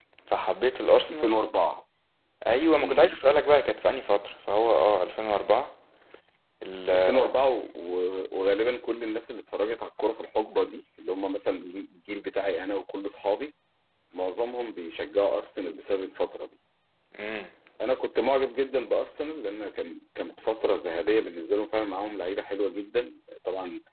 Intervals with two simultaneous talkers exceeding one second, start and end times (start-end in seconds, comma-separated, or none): none